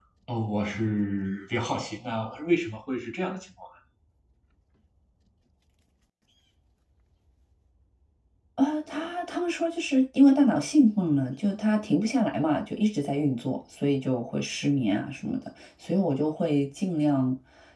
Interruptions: none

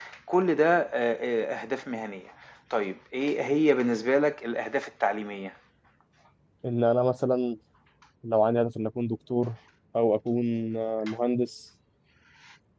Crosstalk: none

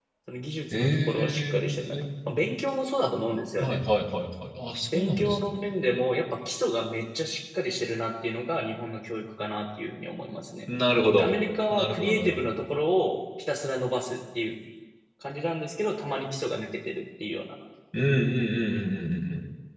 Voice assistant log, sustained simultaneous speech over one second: present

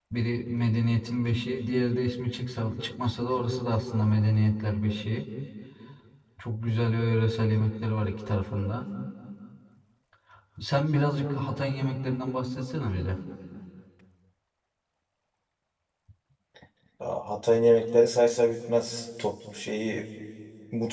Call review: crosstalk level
none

